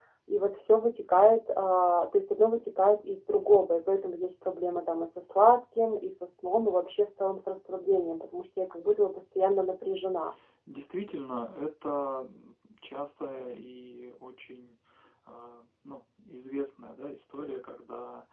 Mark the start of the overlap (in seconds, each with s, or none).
none